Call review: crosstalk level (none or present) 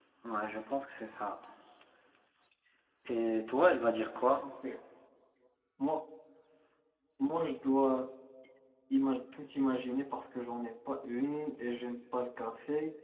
none